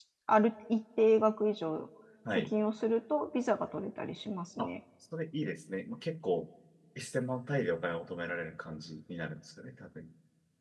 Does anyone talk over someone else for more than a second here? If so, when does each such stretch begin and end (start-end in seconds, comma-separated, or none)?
none